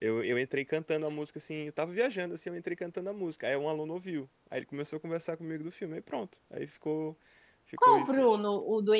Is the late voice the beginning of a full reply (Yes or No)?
Yes